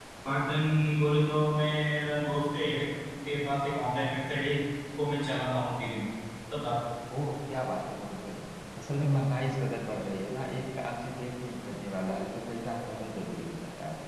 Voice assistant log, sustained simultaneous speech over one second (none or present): none